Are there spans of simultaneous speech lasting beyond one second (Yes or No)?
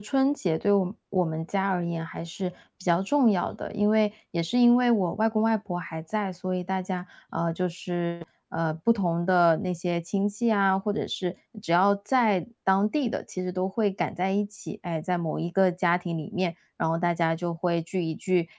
No